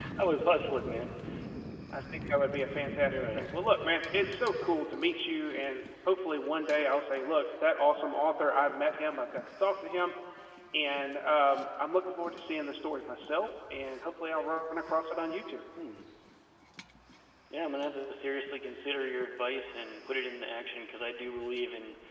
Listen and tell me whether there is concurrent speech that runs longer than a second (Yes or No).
No